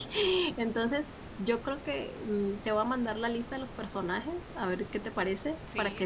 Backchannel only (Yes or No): Yes